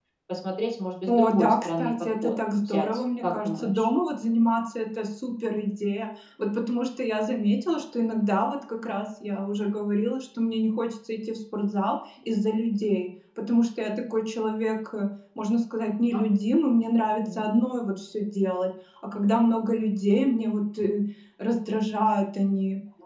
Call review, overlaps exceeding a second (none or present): present